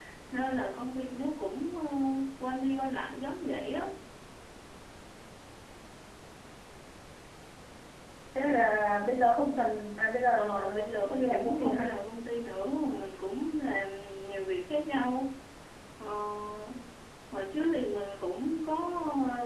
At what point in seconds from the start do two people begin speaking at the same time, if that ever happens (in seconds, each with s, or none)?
10.4 s